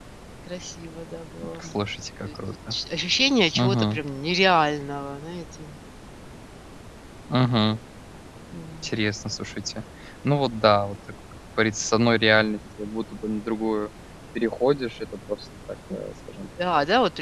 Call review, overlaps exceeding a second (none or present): none